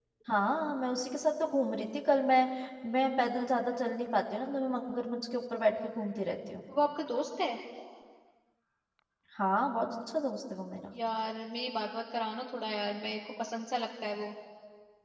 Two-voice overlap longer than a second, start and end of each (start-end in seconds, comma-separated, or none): none